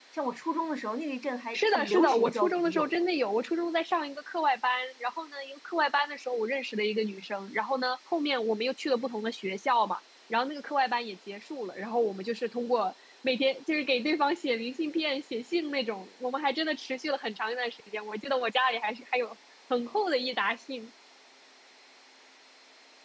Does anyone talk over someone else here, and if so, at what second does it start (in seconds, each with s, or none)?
1.5 s